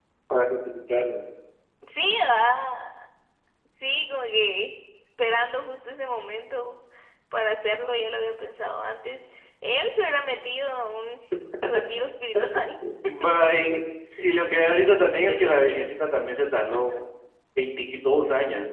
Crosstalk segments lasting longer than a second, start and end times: none

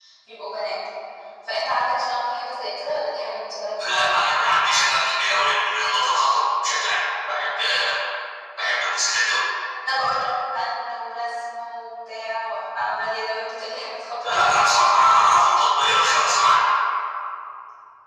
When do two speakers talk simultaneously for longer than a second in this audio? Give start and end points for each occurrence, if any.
none

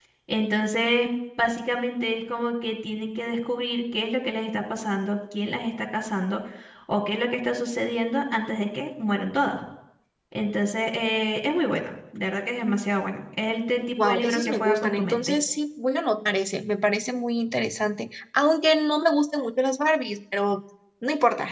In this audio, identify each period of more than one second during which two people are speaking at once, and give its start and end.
14.0-15.4

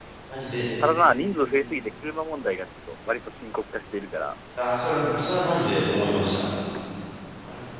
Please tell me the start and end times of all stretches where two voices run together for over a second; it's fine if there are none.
none

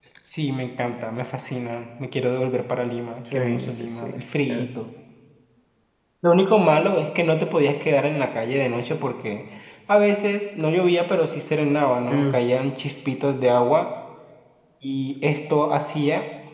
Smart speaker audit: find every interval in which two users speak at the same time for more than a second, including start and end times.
3.3-4.8

